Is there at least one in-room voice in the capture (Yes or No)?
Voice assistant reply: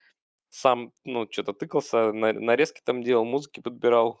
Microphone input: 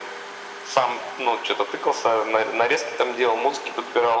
No